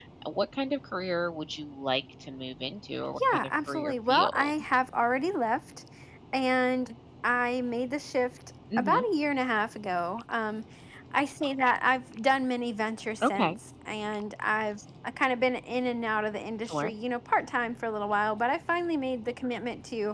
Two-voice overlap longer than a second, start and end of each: 3.2-4.5

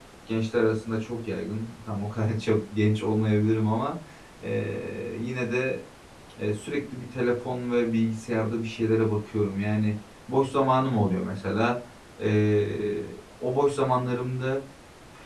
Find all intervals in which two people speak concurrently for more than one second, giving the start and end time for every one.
none

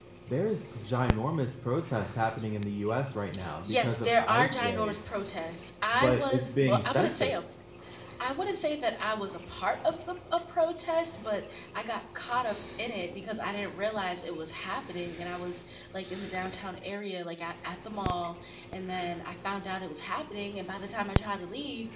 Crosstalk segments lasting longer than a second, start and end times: 3.6-5.0, 5.9-7.4

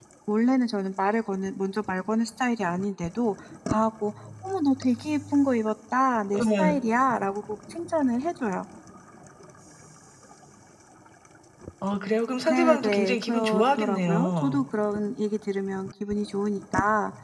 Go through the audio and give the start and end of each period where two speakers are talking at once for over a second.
12.5-14.7

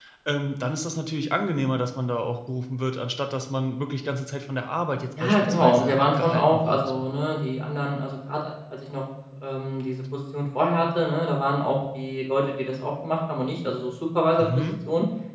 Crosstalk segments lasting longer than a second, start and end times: 5.2-6.9

